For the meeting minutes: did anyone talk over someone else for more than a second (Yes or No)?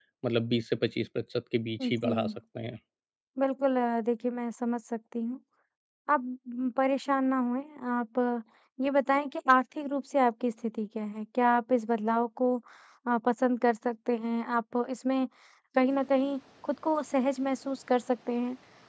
No